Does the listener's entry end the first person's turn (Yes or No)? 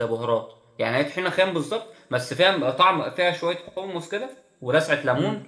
Yes